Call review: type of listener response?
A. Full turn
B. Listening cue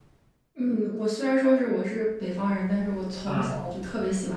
B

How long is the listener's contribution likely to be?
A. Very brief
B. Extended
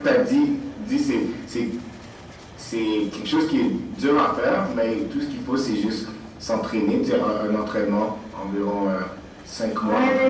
B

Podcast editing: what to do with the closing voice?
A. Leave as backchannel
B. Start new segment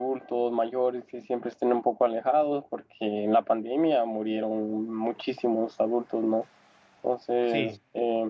B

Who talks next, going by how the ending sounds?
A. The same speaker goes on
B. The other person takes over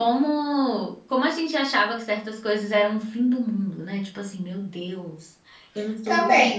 B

